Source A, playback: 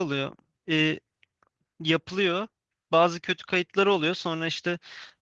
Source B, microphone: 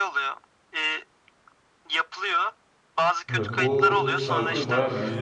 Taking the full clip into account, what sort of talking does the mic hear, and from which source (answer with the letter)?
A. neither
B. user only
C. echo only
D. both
D